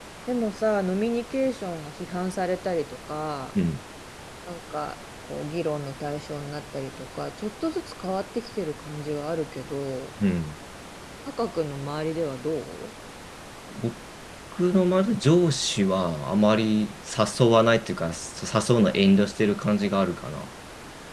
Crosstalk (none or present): none